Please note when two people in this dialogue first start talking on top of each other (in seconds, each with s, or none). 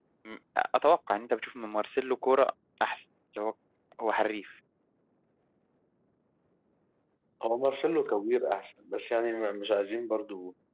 none